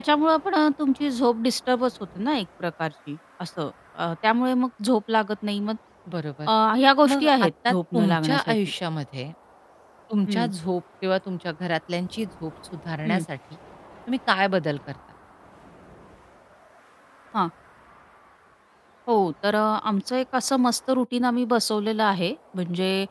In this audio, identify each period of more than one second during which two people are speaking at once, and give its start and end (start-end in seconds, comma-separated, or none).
7.1-8.6